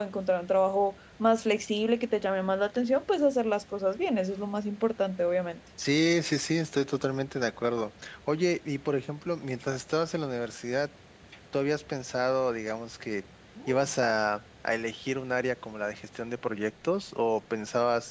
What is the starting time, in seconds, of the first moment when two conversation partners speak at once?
none

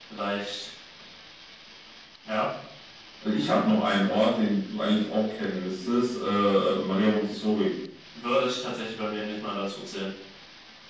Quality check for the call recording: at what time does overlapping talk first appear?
none

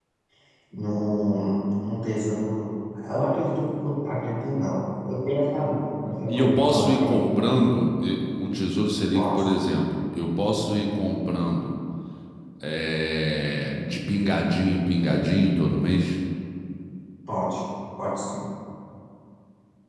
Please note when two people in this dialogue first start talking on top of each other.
6 s

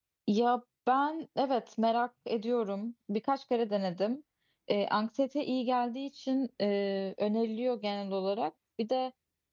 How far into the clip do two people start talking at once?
none

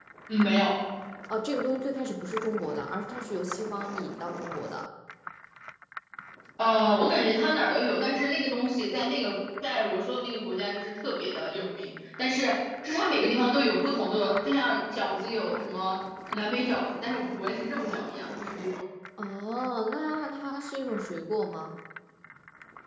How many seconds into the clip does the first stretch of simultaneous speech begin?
none

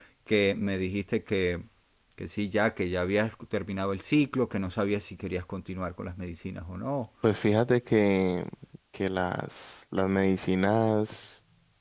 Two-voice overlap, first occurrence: none

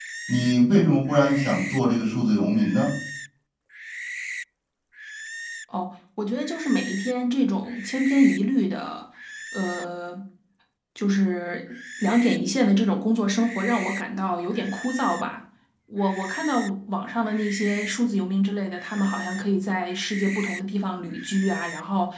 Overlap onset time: none

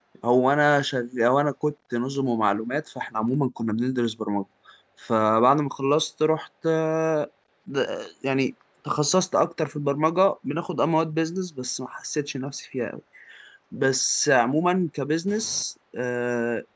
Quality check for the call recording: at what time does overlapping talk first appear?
none

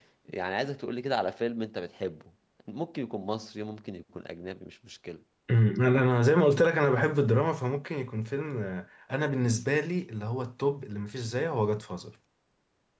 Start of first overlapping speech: none

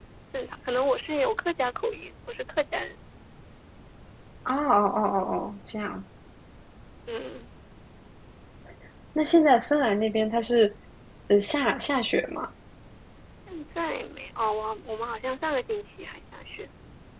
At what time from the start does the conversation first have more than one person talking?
none

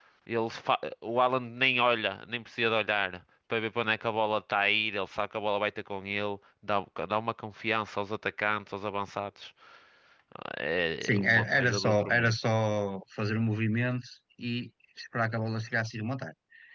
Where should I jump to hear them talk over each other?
11 s

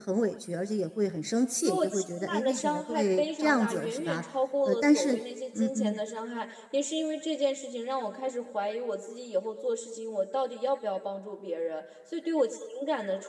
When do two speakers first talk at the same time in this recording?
2 s

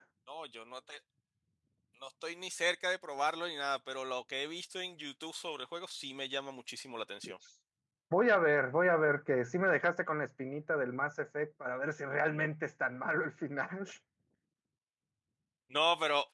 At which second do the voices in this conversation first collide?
none

